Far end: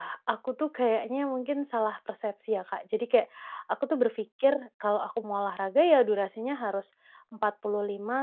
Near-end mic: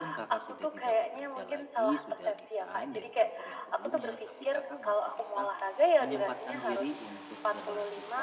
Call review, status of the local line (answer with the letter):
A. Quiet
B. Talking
B